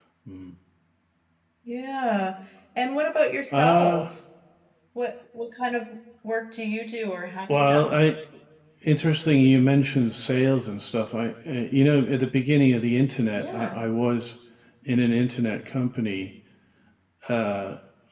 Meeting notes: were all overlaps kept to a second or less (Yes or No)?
Yes